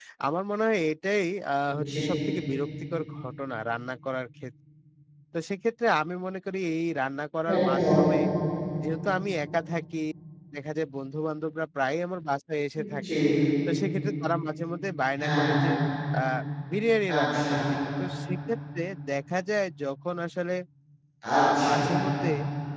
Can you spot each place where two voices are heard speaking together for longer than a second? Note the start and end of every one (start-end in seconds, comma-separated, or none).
none